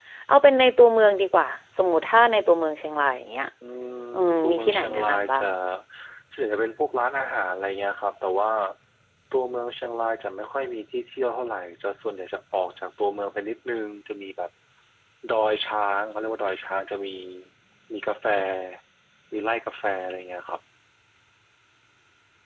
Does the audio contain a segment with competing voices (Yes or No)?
Yes